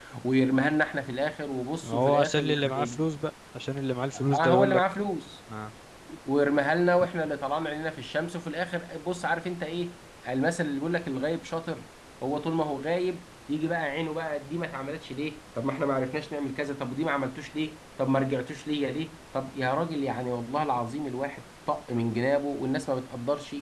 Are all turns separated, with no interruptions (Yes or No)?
No